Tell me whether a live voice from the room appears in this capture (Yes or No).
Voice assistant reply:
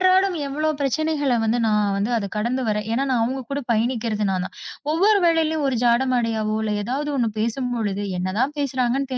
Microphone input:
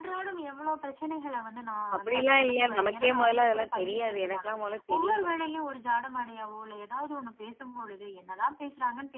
Yes